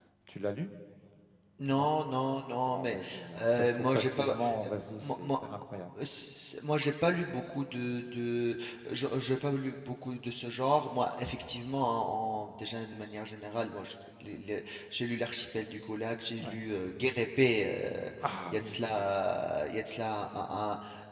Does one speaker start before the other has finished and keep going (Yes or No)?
Yes